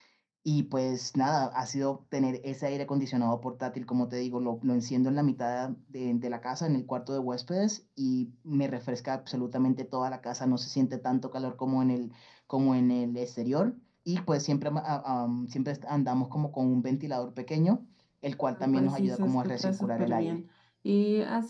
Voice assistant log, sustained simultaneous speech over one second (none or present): present